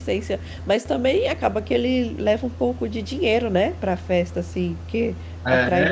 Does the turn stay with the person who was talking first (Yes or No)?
No